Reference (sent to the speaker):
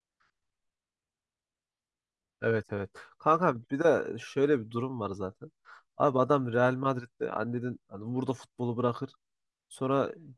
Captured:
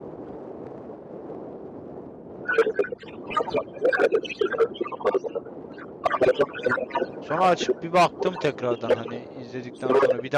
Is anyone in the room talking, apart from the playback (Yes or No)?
Yes